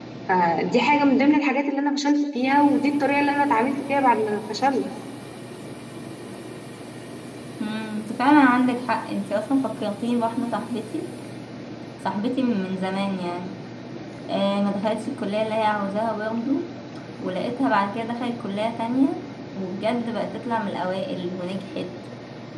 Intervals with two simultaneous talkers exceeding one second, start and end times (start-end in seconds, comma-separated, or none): none